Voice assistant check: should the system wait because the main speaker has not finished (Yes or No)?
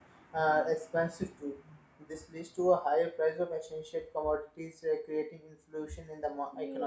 Yes